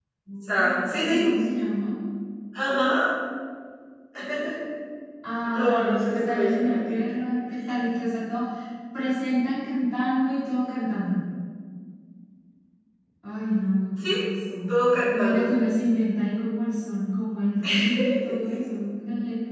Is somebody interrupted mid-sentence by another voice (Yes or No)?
Yes